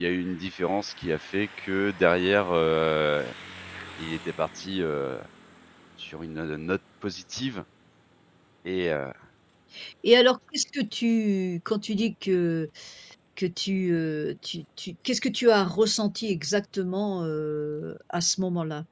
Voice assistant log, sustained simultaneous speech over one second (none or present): none